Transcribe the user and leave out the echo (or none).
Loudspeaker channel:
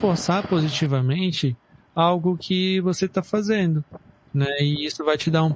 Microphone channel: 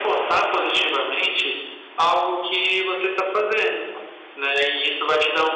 none